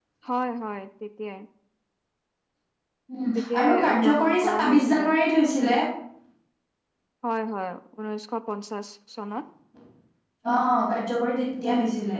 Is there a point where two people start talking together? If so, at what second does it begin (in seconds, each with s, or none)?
3.4 s